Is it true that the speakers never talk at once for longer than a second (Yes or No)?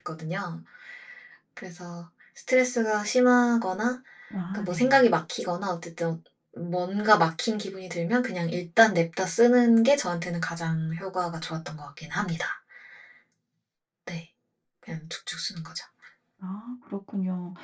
Yes